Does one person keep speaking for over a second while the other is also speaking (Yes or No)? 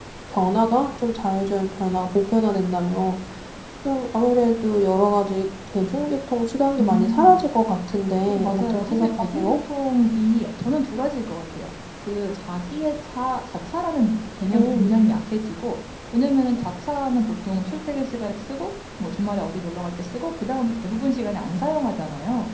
Yes